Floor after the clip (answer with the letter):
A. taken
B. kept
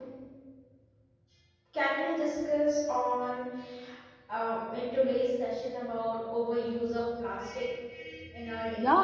A